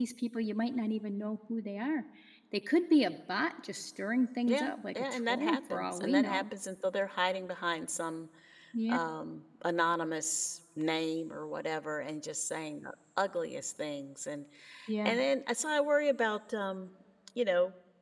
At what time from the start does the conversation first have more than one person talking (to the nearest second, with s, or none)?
4 s